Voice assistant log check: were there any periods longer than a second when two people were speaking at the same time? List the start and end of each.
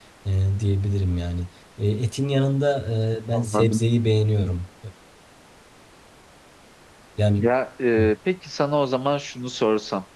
none

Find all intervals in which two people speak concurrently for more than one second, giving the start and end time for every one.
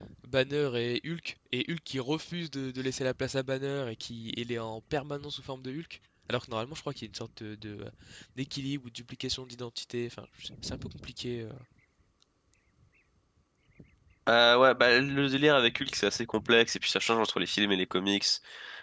none

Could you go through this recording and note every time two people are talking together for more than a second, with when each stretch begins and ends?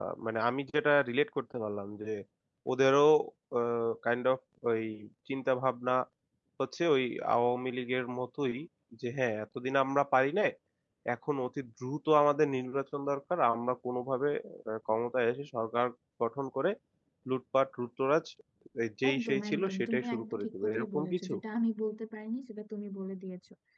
19.1-21.3

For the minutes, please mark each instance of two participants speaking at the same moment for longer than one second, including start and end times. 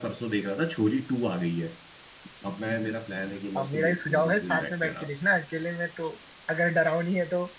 3.6-5.1

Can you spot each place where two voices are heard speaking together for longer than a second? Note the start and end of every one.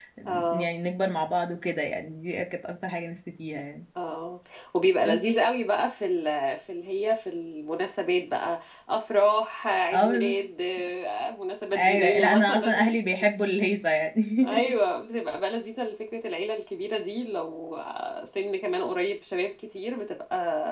11.8-13.0

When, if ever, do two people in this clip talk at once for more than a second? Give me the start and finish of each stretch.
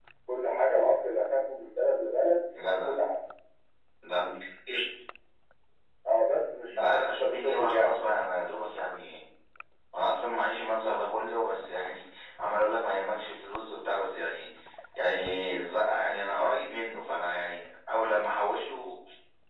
6.7-8.0

